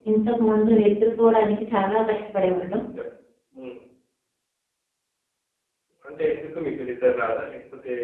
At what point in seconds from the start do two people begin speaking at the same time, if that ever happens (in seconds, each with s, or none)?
none